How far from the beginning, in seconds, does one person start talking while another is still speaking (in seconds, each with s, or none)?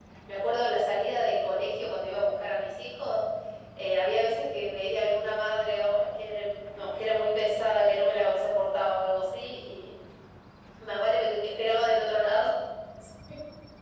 none